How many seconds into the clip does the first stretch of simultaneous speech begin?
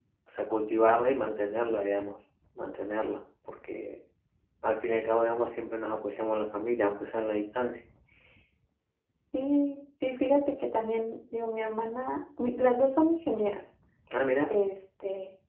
none

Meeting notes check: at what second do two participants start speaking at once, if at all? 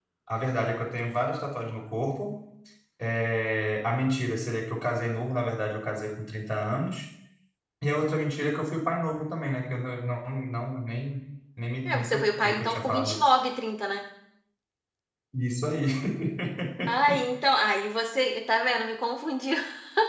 12 s

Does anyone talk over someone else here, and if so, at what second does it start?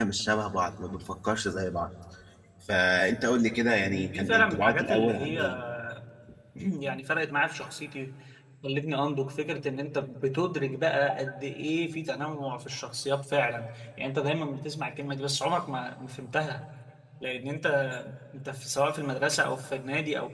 4 s

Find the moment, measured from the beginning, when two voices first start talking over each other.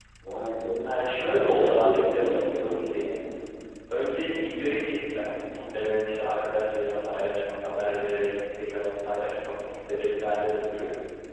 1 s

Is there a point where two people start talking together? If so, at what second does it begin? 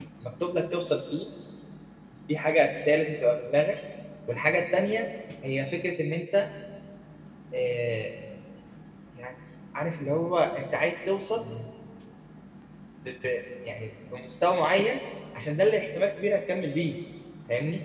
none

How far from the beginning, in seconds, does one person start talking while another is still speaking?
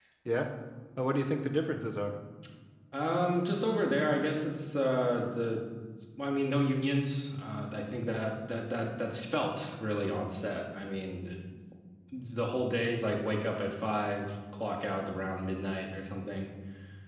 none

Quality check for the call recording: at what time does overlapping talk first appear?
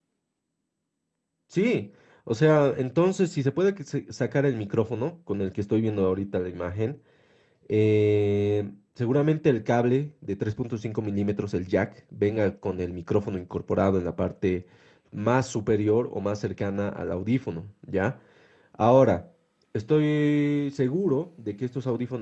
none

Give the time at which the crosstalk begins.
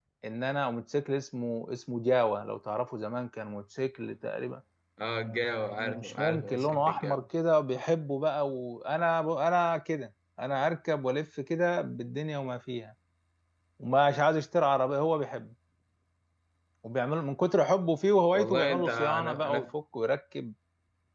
6 s

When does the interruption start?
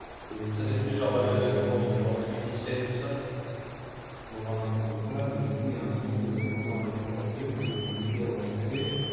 1 s

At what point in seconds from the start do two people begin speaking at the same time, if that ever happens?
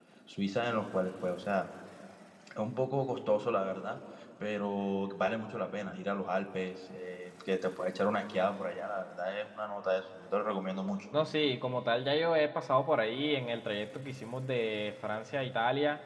none

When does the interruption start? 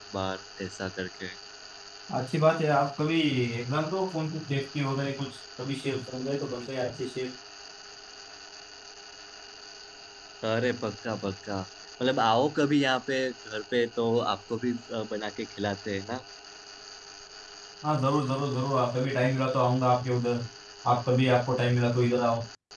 none

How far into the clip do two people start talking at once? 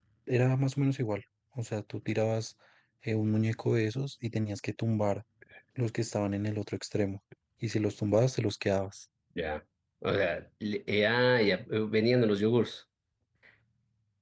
none

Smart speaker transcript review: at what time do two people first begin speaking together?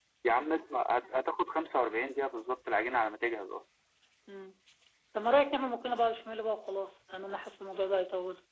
none

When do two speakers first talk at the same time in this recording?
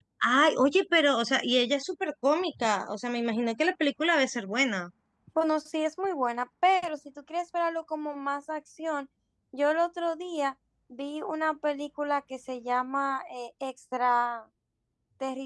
none

